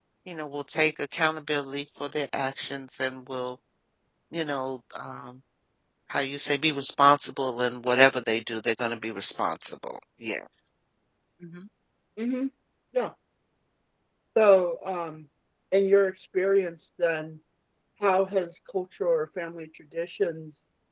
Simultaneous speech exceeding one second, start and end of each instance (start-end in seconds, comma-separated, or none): none